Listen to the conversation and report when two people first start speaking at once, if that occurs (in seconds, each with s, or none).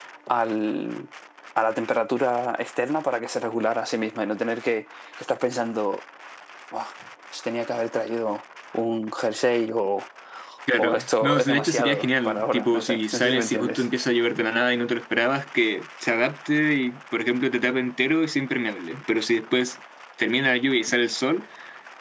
10.8 s